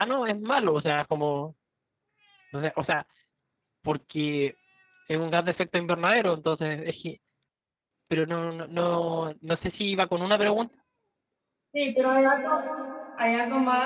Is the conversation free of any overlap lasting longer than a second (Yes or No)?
Yes